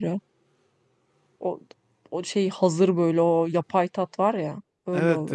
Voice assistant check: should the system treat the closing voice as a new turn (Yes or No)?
Yes